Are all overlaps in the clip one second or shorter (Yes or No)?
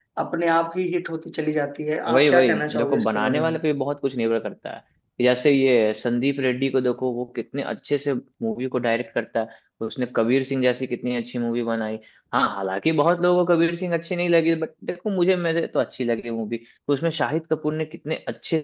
No